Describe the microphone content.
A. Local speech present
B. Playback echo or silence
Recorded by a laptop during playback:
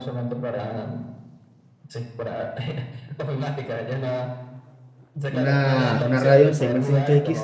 A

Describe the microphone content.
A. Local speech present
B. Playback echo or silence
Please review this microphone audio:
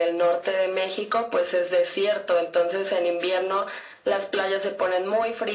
B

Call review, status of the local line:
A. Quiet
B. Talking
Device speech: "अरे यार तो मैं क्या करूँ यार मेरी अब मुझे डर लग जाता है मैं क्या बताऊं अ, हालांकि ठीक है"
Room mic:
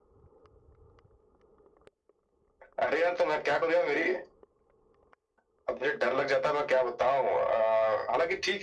A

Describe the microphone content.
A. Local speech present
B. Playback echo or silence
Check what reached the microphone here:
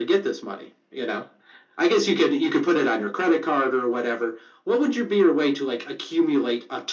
B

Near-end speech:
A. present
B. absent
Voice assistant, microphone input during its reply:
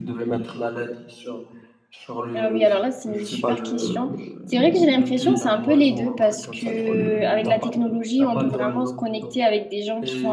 A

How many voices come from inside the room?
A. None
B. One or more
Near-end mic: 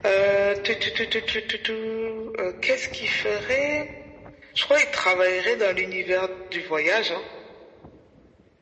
A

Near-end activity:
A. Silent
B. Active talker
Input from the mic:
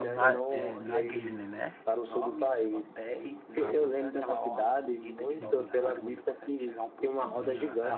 B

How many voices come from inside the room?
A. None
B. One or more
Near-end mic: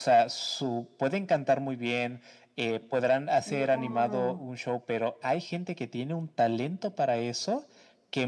B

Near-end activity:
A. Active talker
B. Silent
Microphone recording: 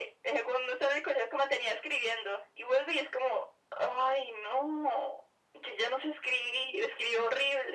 B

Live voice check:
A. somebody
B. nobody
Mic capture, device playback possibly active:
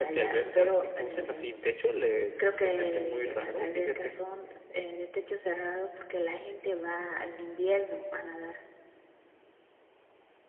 B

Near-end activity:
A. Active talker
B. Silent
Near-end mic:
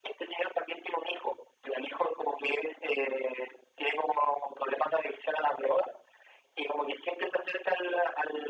B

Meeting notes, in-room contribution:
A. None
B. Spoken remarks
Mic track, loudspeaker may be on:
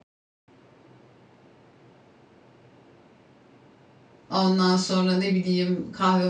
B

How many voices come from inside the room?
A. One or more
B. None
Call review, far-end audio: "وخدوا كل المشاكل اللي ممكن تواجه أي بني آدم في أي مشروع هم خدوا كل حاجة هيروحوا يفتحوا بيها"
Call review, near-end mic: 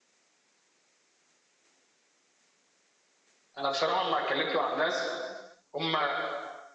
A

